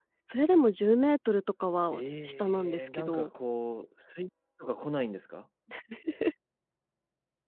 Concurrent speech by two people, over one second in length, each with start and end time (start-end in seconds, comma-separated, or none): 1.9-3.3